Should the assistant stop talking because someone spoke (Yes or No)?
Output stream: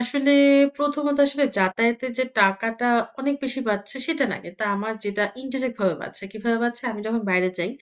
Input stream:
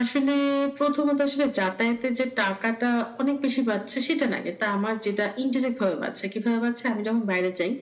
No